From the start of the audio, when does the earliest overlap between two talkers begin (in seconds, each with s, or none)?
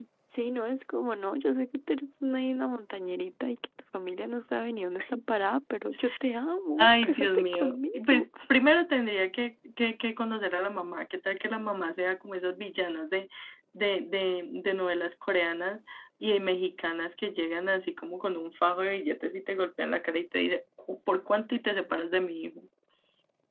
6.8 s